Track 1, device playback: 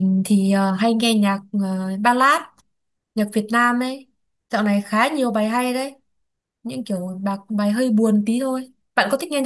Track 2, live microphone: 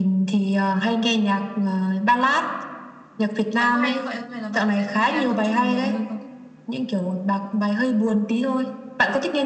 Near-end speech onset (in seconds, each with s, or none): 3.6 s